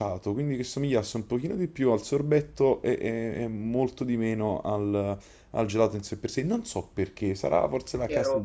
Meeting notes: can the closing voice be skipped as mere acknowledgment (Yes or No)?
No